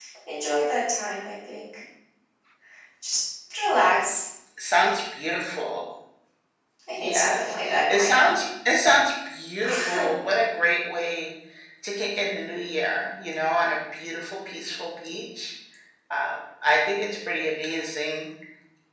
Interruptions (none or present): present